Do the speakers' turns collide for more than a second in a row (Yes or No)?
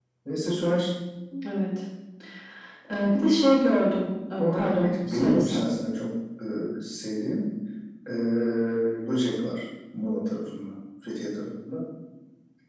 Yes